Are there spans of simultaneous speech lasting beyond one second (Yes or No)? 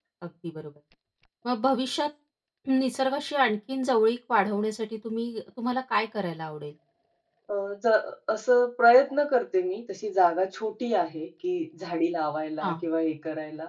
No